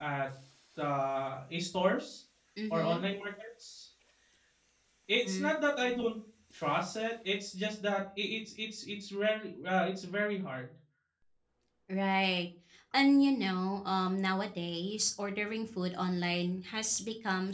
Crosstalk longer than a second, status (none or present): none